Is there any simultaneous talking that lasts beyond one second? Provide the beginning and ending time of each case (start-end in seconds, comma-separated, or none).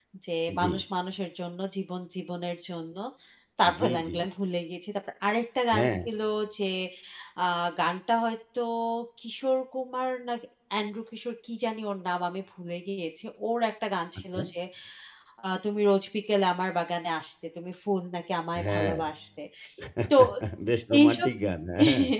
none